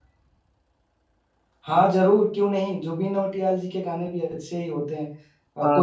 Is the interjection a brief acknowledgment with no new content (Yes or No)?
No